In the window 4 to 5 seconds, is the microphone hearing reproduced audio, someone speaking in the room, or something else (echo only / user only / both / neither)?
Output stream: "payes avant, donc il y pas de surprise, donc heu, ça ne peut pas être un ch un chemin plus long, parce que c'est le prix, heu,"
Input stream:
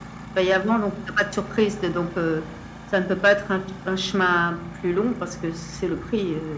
echo only